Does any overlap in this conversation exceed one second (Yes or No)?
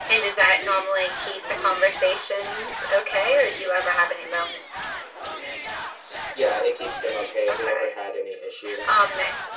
No